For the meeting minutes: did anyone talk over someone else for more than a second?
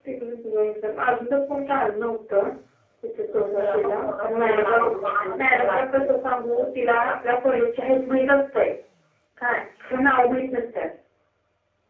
Yes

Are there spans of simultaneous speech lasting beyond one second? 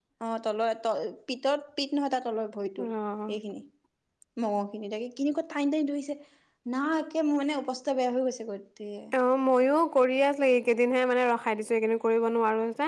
No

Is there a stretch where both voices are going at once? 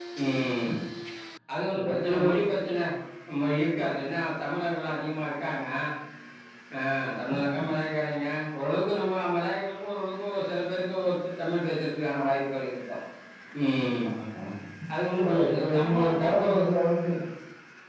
Yes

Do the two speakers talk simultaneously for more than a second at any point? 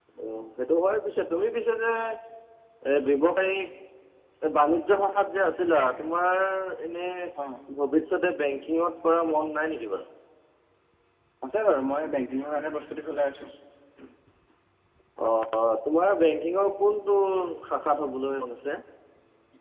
No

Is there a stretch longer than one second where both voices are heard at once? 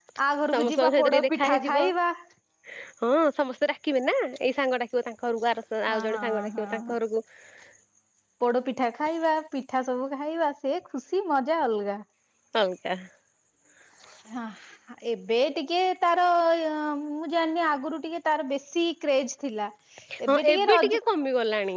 Yes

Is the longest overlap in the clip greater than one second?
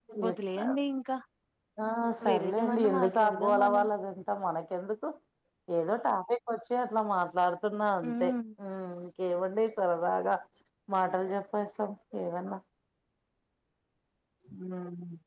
Yes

